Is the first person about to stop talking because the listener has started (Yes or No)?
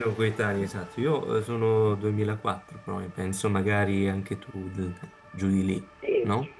Yes